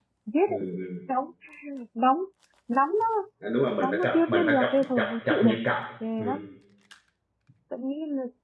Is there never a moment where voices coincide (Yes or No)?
No